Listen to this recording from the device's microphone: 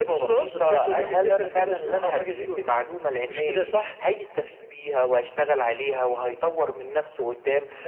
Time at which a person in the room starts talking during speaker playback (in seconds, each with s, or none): none